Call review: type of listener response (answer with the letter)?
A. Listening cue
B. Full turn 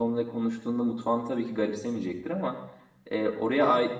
A